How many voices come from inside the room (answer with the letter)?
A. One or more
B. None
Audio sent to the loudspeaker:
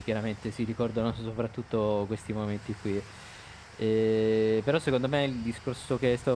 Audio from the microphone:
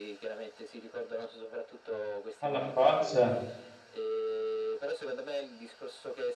A